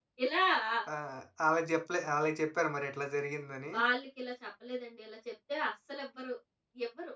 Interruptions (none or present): none